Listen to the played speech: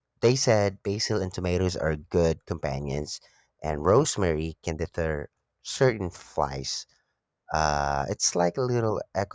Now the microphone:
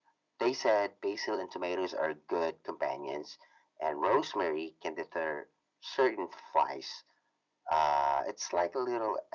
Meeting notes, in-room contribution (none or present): none